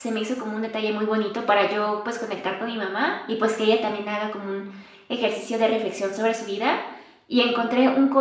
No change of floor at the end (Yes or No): Yes